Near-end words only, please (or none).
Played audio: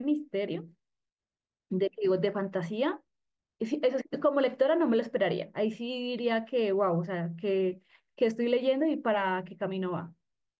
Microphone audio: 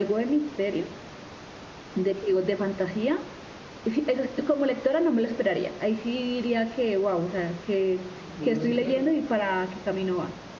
No, no sé qué, perdón.